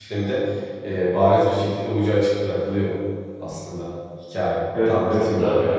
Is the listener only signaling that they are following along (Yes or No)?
No